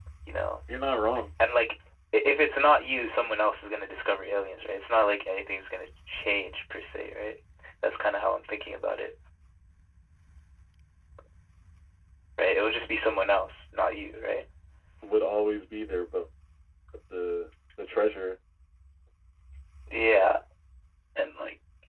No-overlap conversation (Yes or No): Yes